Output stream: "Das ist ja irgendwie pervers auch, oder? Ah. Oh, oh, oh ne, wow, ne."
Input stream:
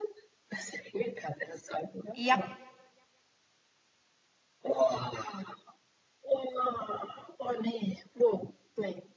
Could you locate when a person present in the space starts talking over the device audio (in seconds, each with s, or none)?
2.1 s